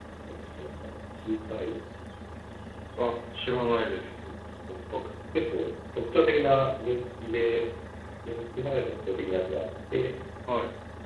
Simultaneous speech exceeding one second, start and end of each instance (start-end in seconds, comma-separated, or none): none